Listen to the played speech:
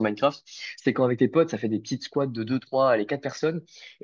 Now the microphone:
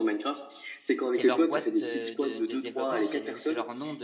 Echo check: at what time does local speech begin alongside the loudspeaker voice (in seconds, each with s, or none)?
1.1 s